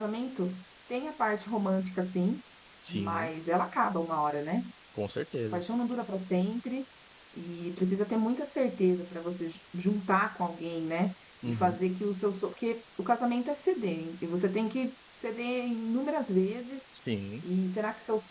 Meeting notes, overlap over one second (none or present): none